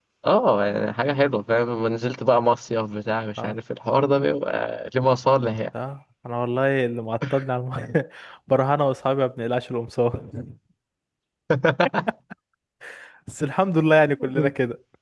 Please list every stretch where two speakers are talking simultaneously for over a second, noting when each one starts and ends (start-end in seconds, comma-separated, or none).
none